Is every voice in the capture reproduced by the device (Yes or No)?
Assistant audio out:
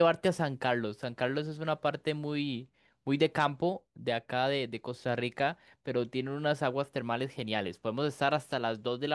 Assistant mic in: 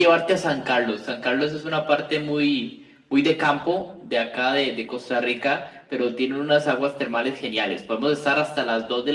Yes